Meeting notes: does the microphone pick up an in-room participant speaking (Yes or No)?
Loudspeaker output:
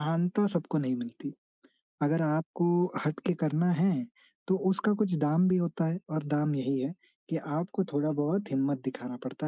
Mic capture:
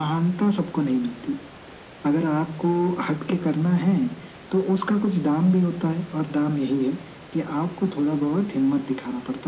No